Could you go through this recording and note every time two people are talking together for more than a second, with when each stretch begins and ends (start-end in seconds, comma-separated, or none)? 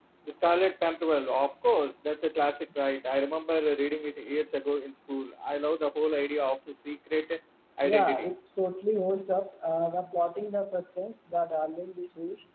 none